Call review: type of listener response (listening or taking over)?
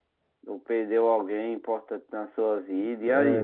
taking over